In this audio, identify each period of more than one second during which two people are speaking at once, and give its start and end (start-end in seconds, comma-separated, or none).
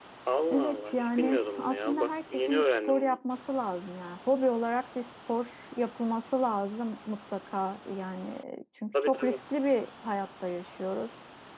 0.5-3.2